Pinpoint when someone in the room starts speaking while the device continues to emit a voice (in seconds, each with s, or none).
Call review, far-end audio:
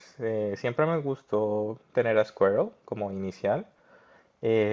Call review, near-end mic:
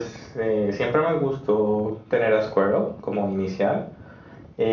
none